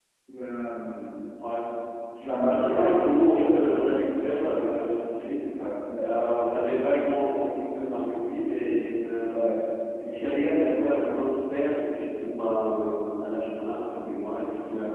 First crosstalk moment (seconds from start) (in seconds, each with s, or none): 2.5 s